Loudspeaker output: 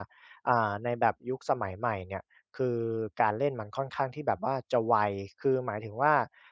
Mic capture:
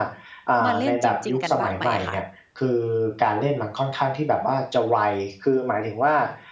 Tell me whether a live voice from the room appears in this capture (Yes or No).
Yes